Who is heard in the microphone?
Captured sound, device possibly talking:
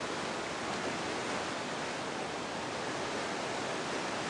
neither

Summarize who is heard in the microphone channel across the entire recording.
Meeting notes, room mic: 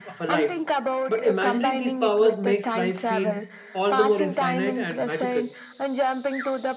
both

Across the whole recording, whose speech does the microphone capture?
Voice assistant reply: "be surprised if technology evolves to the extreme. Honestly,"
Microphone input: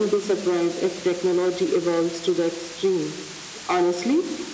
echo only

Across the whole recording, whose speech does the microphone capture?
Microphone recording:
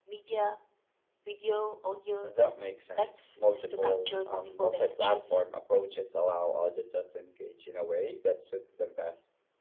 echo only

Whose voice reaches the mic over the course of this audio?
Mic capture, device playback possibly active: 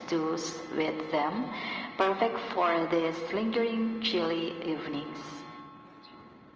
echo only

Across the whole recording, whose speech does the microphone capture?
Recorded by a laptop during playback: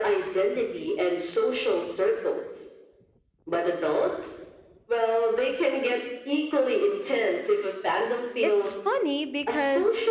both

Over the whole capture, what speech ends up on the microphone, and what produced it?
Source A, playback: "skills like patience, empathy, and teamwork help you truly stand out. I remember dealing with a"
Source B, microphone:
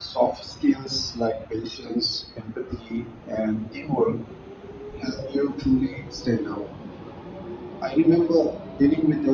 echo only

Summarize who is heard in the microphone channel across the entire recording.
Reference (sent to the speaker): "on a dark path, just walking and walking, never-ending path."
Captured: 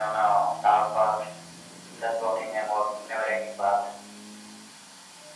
echo only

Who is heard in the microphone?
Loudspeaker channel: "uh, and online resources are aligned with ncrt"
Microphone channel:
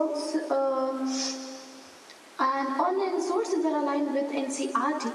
echo only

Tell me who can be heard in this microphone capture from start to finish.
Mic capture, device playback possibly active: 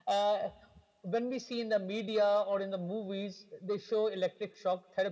echo only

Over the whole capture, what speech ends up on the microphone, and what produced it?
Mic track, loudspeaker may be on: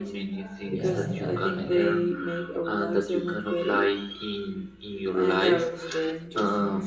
both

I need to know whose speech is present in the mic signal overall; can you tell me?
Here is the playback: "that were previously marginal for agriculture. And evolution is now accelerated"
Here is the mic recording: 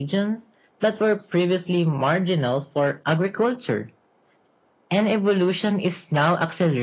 echo only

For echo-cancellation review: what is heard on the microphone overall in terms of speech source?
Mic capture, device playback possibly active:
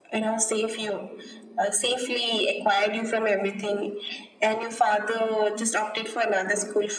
echo only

